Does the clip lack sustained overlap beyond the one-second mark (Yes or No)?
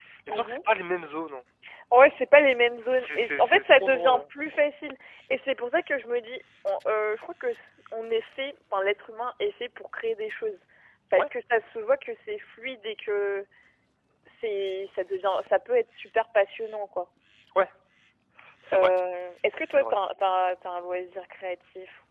No